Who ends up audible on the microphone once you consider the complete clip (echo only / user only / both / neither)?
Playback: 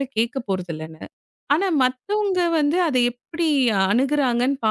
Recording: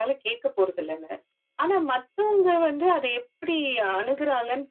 echo only